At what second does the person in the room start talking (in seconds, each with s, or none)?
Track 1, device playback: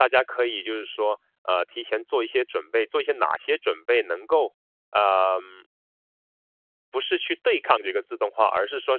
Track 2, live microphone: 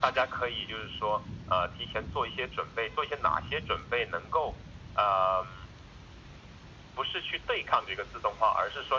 none